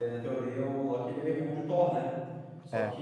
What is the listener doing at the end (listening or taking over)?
listening